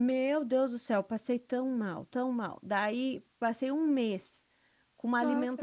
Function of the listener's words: listening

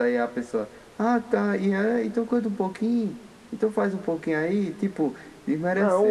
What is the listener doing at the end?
taking over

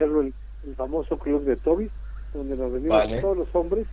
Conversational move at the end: listening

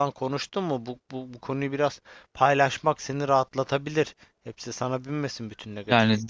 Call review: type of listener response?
taking over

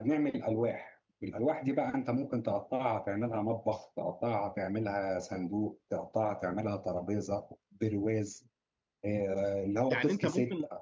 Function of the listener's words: taking over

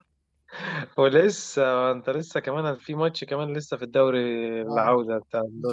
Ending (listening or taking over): taking over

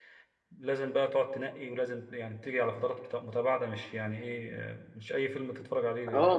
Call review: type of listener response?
taking over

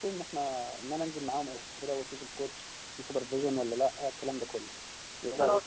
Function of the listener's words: taking over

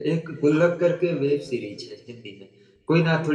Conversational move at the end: listening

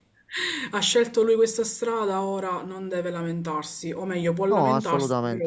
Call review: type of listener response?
listening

